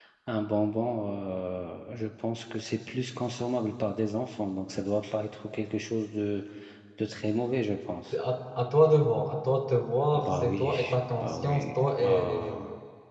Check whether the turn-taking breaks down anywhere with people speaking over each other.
Yes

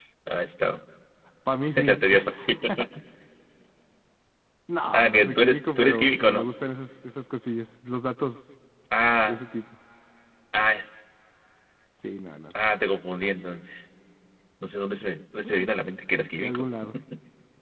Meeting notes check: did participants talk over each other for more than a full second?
Yes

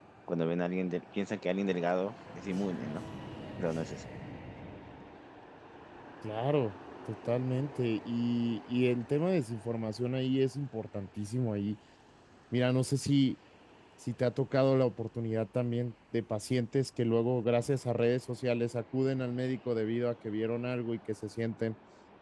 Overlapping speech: No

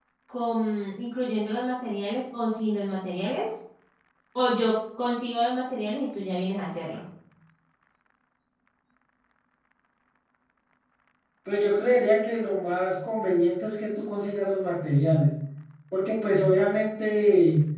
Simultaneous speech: No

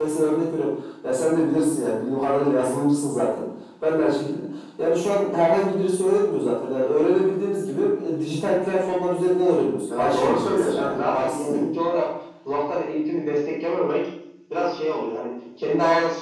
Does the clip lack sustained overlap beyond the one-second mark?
No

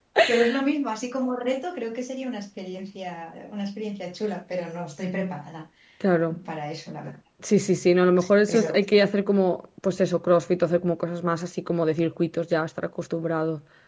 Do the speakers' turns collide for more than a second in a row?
No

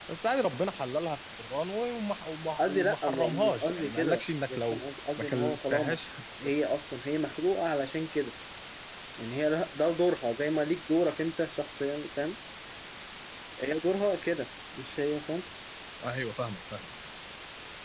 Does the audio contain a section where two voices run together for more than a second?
Yes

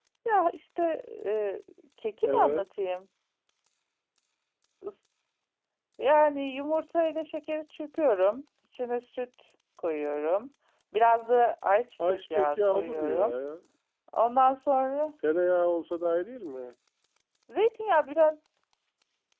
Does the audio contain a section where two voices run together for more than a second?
Yes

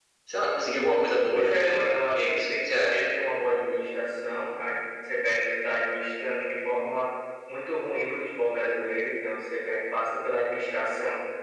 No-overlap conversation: No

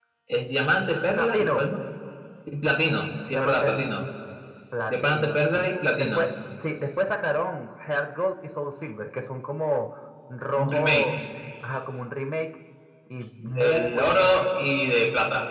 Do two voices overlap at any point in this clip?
Yes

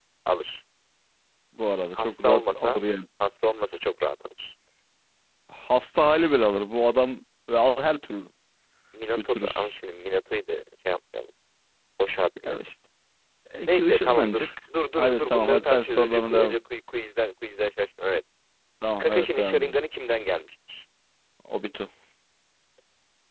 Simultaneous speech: Yes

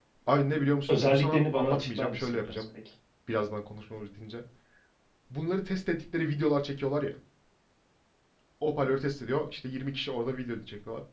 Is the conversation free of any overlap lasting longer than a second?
No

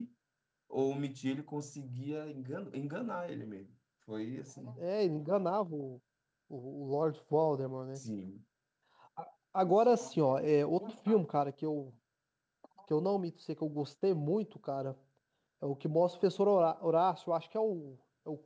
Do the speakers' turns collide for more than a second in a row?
No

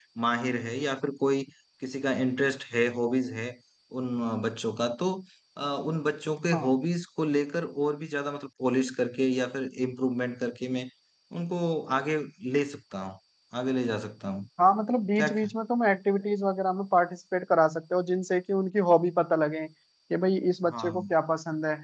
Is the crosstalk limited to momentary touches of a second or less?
Yes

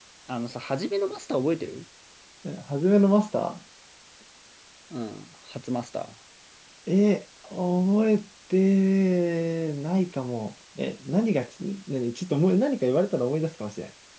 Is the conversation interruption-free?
Yes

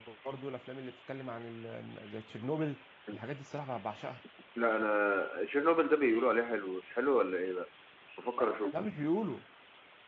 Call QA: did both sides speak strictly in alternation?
Yes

